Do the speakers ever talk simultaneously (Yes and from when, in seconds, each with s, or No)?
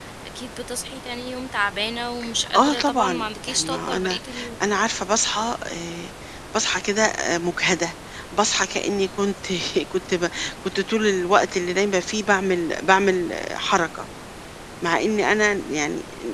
Yes, from 2.6 s